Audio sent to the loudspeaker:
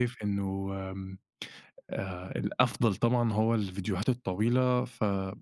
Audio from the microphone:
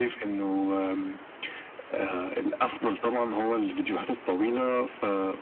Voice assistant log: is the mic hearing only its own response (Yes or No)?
Yes